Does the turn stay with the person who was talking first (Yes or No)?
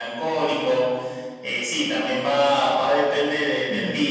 Yes